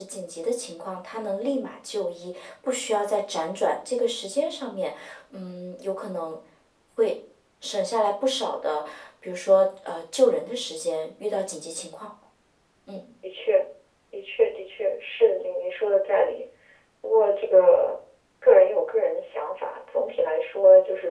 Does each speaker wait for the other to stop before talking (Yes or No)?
Yes